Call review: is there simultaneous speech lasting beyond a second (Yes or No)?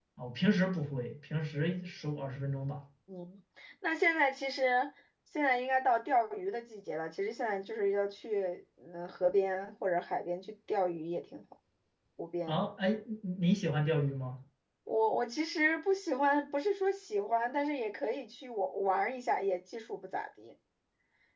No